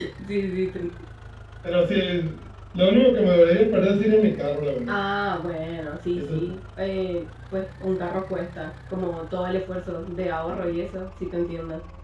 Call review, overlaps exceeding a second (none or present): none